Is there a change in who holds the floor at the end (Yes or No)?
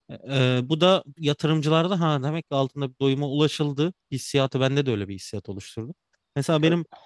No